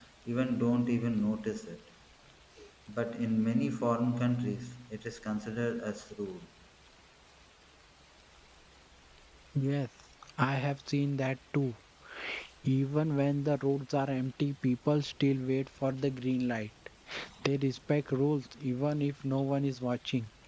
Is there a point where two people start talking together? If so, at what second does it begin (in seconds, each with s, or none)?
none